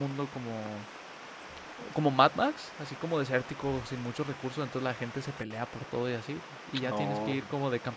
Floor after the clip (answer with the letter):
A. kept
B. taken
A